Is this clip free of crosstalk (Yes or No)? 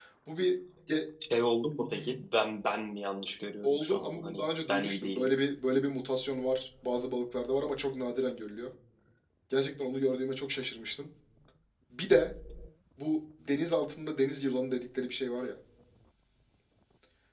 No